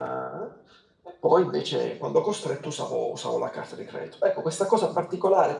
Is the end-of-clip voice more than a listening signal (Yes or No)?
No